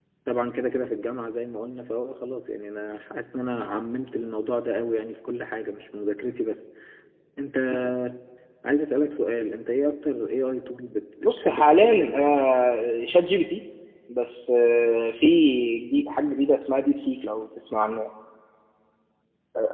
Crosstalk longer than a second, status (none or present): present